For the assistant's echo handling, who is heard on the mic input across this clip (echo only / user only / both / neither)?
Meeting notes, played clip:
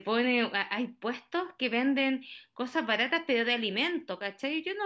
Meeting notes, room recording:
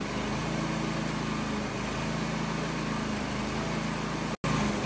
neither